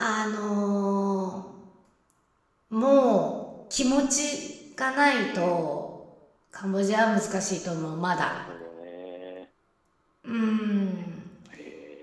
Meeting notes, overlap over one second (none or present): none